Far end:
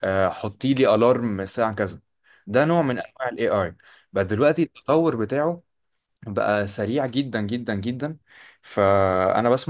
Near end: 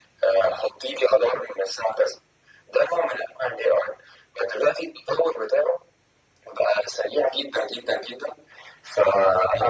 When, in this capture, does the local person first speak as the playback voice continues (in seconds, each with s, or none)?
none